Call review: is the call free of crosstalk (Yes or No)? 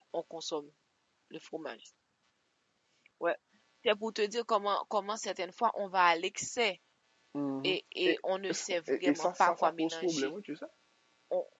No